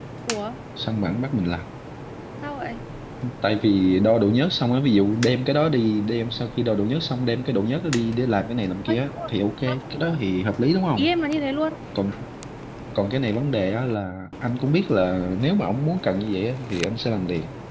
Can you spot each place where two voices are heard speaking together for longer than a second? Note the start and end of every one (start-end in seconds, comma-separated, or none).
none